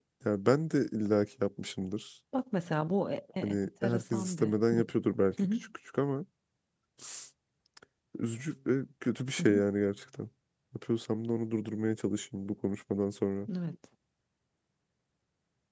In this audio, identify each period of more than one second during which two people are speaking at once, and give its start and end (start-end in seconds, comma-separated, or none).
3.4-4.8